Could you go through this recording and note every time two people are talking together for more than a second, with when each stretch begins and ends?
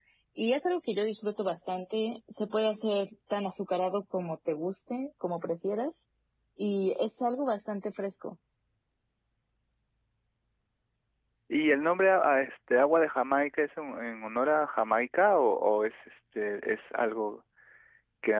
none

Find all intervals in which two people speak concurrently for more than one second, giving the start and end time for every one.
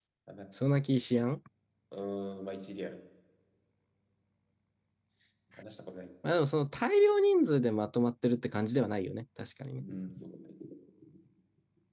none

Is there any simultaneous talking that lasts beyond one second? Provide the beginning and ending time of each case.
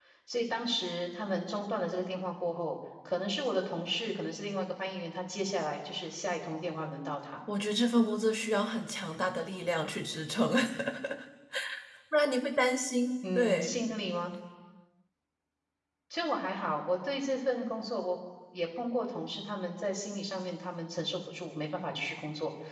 none

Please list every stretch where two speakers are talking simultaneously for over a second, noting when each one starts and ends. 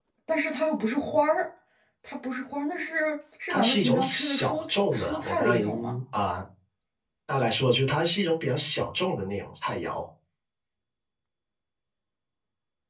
3.5-6.0

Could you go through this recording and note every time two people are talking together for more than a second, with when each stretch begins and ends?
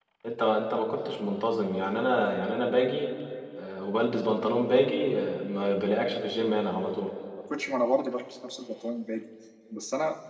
none

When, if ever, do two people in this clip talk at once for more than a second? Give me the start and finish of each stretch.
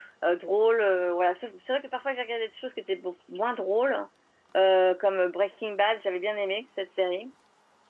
none

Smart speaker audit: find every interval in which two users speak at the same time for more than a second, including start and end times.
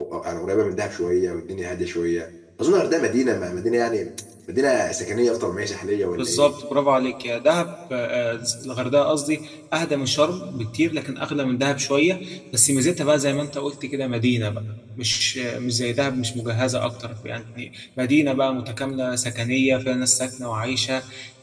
none

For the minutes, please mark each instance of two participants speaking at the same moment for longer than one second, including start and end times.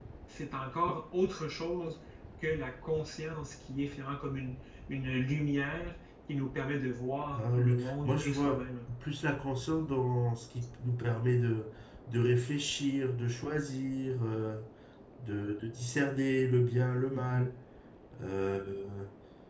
7.3-8.6

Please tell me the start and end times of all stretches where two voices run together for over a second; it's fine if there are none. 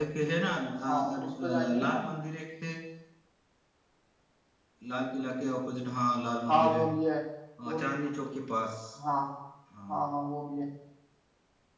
0.9-2.1

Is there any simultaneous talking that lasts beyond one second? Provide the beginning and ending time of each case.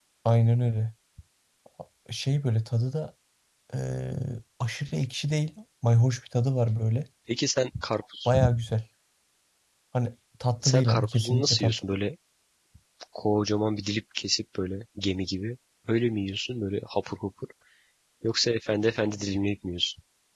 10.6-11.8

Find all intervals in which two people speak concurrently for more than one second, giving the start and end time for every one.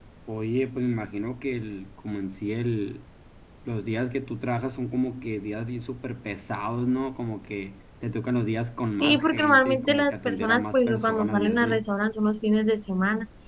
9.0-11.9

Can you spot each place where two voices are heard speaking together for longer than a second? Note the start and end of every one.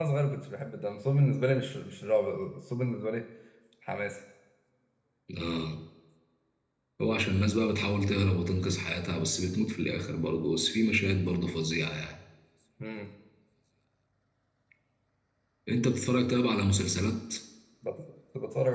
none

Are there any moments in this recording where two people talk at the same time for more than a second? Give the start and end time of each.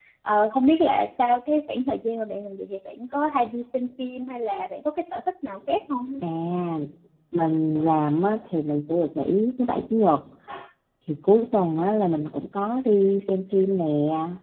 none

